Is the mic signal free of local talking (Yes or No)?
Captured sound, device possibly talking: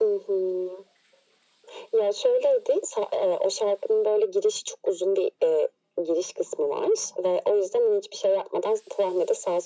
Yes